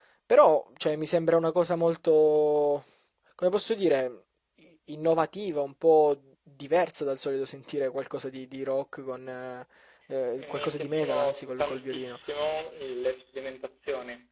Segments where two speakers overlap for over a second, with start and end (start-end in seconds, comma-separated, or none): 10.4-12.2